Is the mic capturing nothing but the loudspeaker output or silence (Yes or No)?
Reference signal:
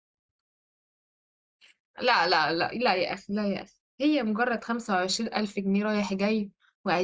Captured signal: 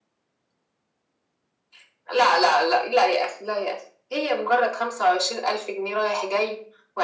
Yes